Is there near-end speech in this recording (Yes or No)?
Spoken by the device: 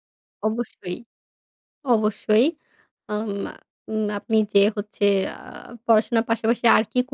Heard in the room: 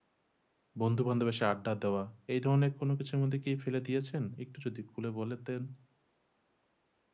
Yes